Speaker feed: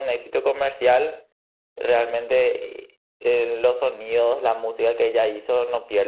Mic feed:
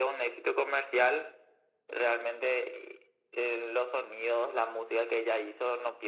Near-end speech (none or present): none